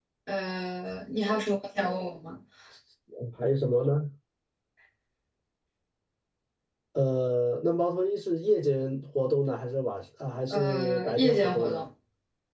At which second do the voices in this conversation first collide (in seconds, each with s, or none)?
10.5 s